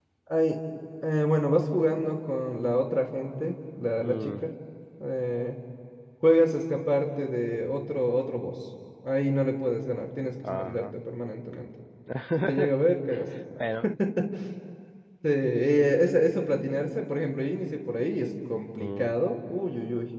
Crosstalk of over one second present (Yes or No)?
No